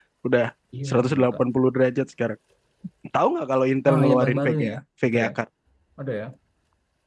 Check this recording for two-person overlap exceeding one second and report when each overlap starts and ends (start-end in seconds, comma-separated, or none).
3.9-5.3